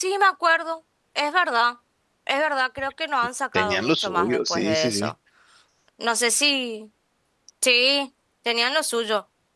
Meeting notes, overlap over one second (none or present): present